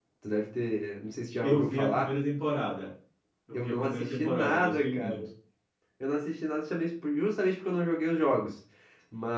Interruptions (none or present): present